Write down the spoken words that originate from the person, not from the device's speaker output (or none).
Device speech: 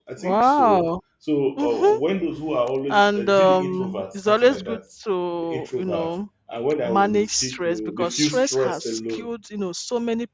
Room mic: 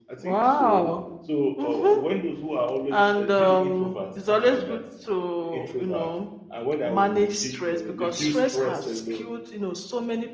none